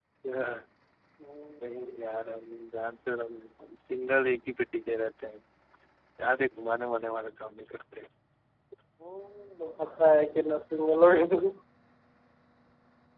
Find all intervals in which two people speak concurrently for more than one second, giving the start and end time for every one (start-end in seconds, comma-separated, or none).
none